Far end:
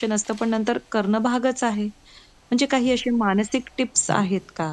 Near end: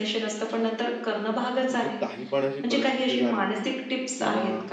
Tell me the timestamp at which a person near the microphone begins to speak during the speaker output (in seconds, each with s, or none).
1.7 s